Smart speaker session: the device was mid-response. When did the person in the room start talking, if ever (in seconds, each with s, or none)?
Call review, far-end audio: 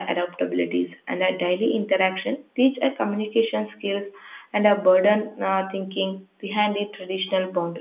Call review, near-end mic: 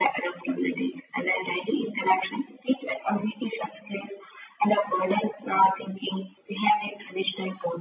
none